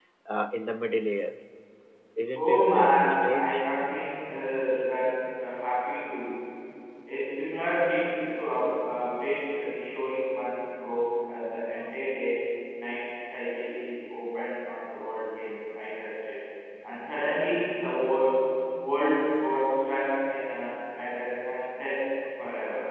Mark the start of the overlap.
2.4 s

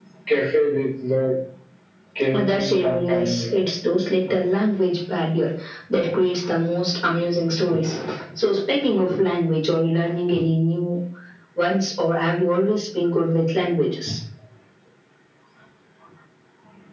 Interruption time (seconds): 2.3 s

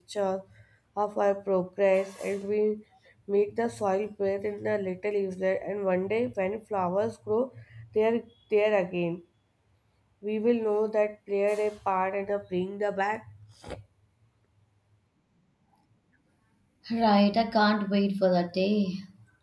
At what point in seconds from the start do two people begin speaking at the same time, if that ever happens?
none

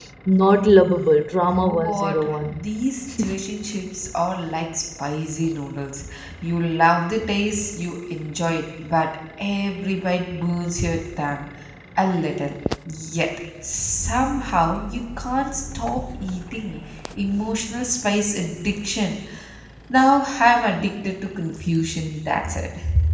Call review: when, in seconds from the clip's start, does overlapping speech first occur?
1.4 s

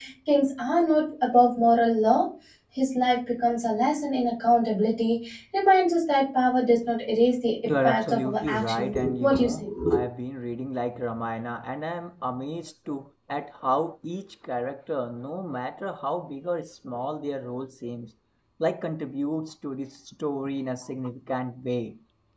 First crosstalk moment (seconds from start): 7.7 s

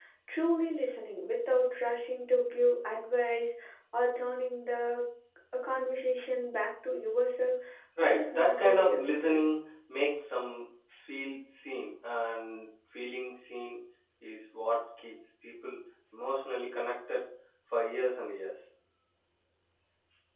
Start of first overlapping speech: 8.0 s

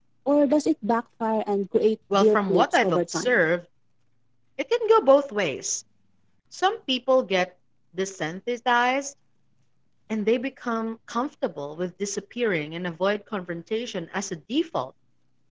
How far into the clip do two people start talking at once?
2.1 s

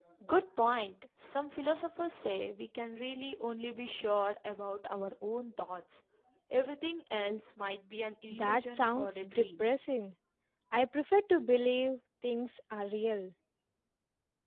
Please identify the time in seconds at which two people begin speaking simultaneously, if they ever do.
8.3 s

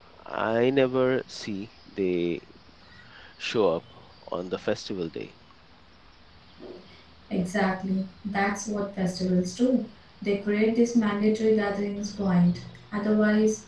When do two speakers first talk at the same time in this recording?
none

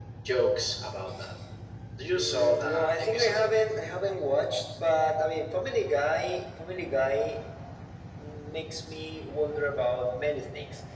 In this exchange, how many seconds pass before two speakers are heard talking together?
2.1 s

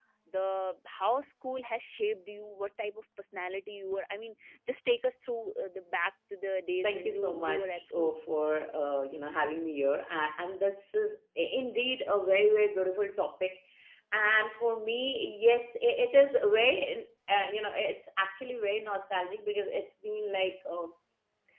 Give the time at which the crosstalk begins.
6.8 s

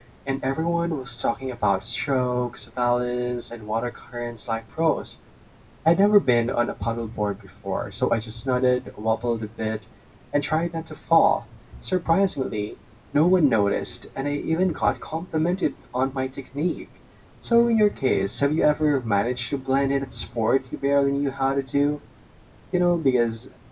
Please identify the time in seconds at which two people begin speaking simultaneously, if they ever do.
none

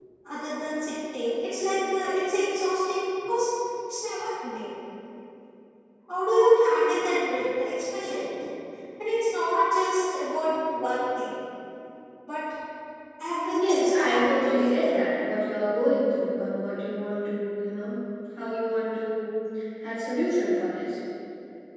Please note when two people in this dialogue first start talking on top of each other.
13.5 s

